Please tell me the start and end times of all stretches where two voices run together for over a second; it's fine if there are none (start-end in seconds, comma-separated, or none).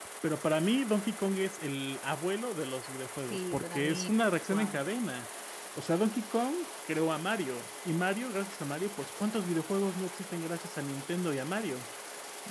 3.2-4.8